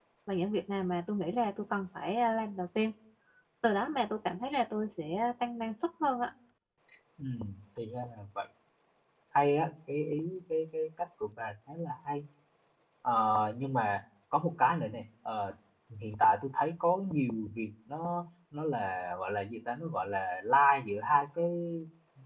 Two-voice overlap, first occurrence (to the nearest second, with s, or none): none